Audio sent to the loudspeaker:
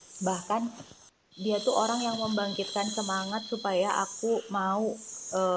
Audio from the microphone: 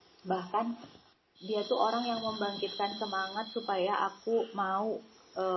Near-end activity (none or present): none